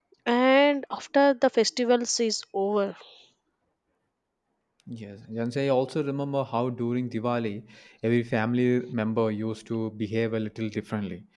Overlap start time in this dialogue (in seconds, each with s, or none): none